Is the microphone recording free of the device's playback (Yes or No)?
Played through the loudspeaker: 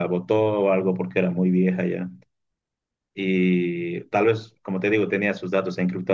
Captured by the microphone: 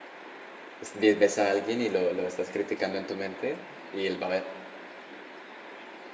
Yes